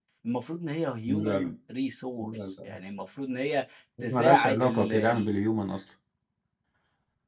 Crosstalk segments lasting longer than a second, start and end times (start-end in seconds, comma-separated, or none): 4.0-5.3